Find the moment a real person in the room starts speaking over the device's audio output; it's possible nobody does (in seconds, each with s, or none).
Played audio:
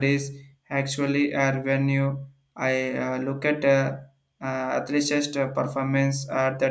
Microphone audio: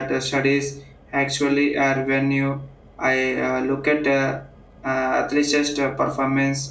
none